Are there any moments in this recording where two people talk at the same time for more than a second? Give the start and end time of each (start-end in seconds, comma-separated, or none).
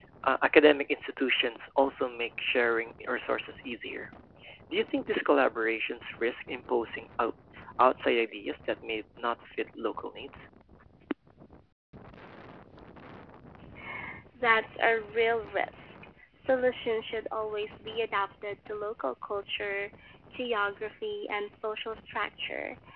none